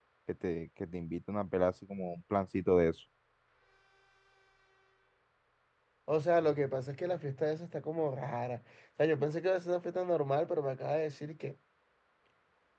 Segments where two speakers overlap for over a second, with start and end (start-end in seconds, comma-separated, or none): none